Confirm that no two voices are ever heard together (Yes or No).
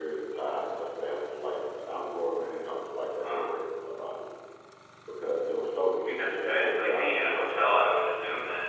No